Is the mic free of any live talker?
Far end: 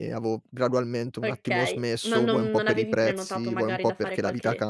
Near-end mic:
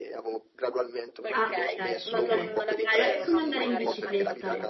No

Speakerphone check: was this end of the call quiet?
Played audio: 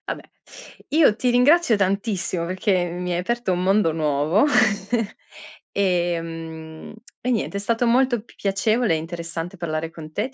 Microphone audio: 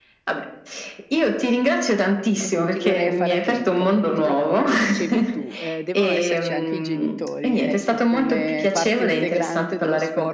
No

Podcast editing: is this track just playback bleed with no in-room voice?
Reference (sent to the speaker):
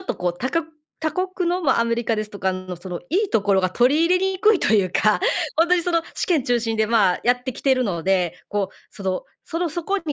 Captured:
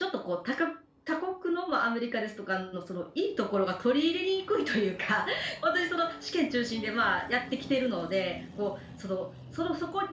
Yes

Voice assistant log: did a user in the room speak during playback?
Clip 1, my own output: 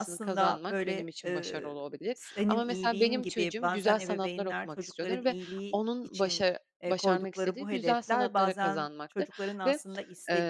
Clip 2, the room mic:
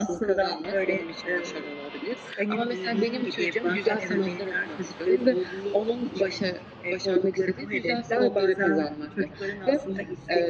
No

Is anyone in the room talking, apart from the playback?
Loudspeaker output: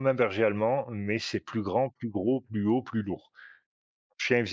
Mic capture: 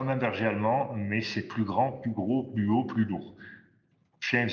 No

